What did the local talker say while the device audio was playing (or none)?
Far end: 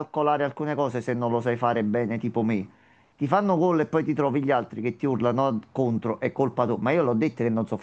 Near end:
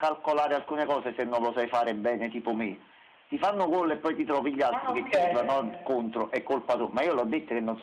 Ah, ok,